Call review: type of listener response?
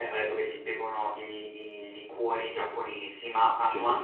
listening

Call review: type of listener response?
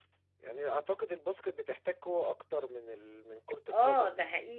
taking over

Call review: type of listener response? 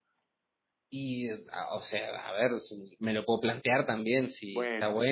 listening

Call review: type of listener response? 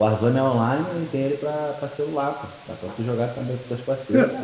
taking over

